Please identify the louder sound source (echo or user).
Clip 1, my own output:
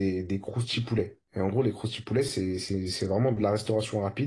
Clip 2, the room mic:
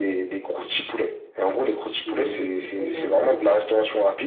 echo